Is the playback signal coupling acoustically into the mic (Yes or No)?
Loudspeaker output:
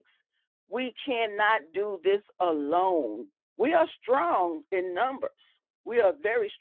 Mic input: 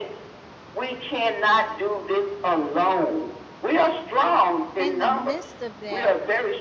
Yes